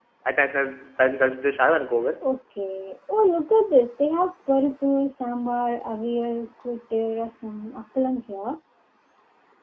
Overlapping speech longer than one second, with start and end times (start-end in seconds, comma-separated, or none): none